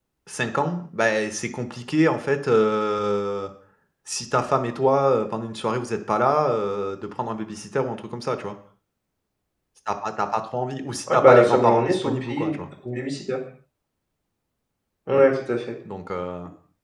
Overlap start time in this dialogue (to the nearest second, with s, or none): 11 s